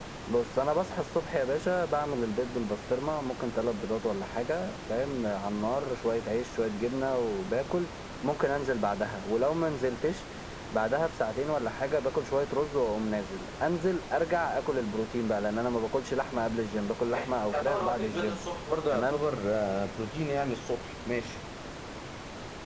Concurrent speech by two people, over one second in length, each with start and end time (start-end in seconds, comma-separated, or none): 17.1-18.4